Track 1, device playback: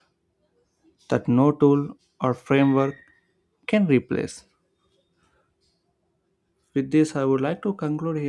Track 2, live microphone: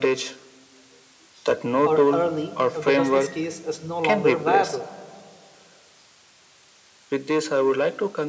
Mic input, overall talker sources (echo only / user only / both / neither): both